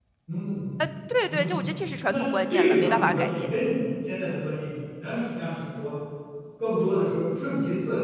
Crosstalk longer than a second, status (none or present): present